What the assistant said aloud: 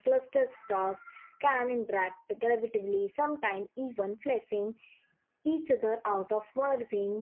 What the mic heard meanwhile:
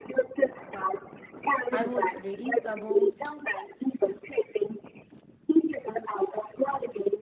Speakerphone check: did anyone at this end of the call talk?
Yes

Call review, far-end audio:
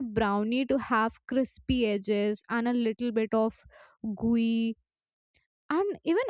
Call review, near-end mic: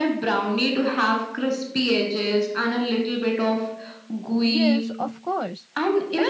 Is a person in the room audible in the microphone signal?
Yes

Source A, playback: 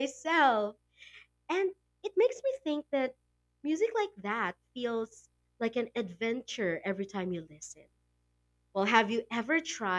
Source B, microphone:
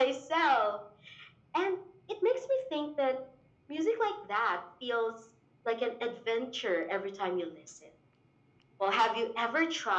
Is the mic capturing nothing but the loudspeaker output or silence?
Yes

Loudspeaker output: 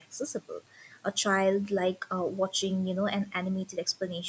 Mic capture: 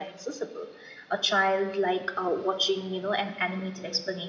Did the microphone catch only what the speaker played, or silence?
Yes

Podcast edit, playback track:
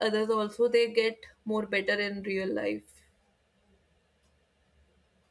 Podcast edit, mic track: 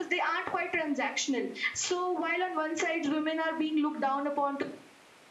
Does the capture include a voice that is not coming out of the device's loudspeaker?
Yes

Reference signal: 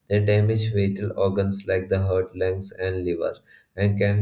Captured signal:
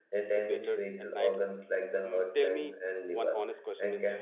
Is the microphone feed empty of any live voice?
No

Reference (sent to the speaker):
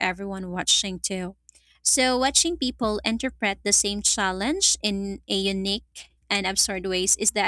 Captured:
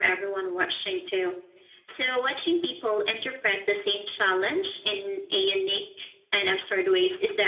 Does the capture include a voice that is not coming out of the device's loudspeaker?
No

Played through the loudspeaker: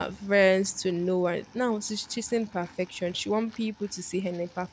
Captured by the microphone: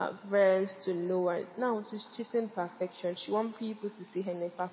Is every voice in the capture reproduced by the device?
Yes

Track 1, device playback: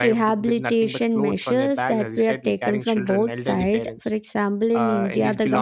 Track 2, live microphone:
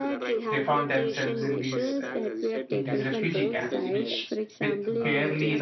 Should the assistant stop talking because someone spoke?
Yes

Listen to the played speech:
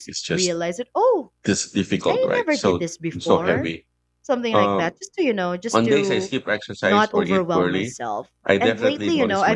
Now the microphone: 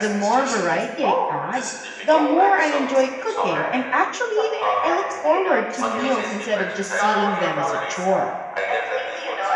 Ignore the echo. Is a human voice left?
Yes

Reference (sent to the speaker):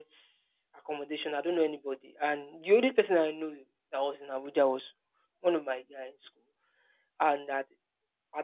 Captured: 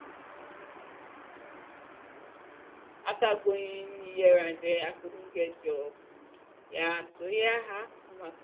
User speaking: Yes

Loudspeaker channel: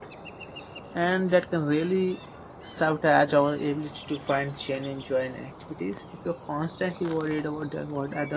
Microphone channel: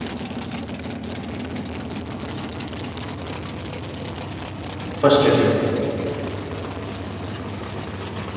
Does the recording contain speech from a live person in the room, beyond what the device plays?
Yes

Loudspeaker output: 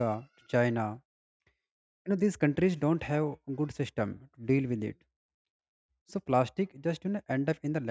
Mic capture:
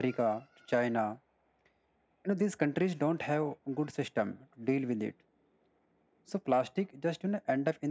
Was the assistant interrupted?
No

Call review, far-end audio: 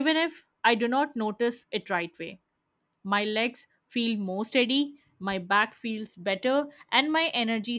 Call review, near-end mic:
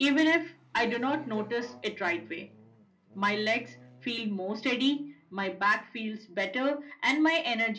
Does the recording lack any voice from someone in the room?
No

